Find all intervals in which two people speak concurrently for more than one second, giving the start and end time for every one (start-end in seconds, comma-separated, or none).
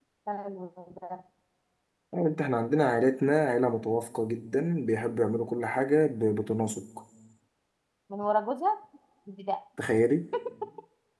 none